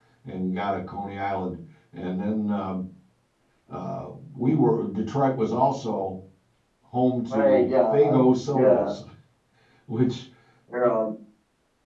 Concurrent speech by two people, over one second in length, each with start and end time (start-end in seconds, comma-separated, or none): 7.3-8.9